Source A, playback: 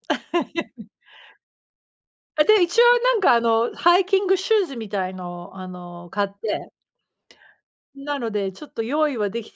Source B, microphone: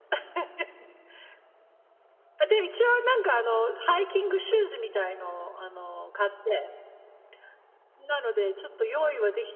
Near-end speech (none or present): none